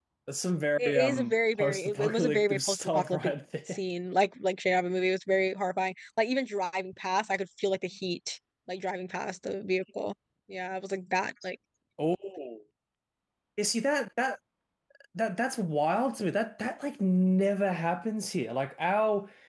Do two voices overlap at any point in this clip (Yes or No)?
Yes